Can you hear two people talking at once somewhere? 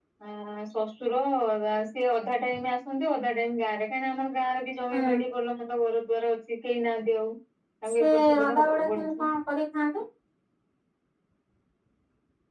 Yes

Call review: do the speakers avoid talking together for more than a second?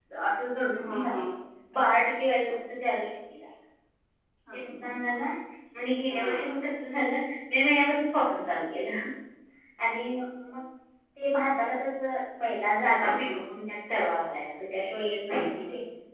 Yes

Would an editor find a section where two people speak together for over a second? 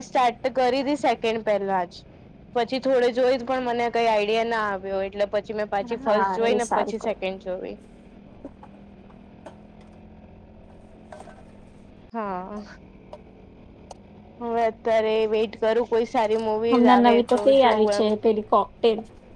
Yes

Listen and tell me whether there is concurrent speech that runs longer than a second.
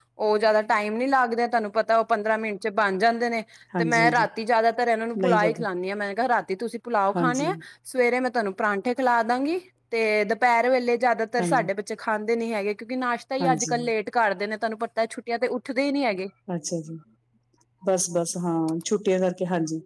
No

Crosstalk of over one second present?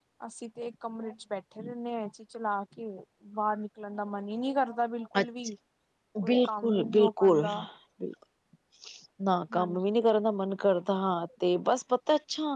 Yes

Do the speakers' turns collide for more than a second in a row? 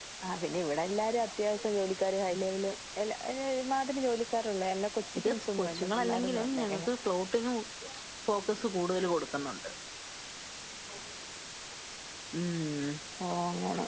Yes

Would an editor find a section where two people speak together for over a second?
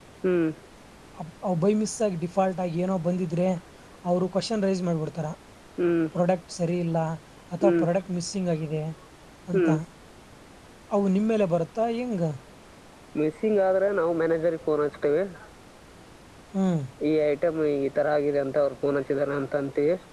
No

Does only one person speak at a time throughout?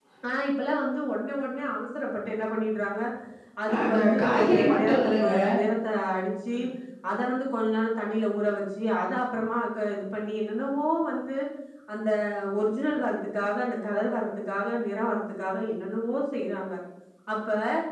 No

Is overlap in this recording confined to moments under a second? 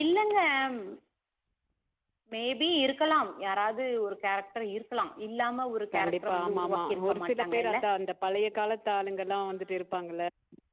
No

